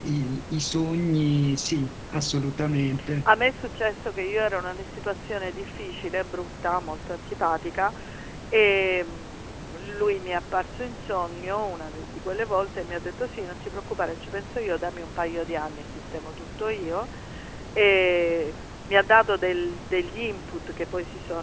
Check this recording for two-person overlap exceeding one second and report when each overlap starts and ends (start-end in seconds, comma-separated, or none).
none